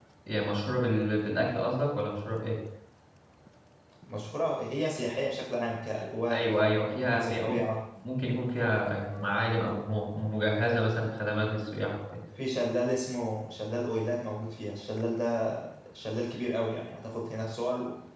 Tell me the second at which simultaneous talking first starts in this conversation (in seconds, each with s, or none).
6.3 s